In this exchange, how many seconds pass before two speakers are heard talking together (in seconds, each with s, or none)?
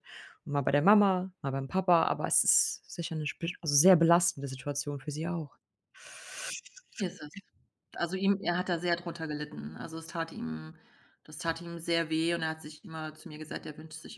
none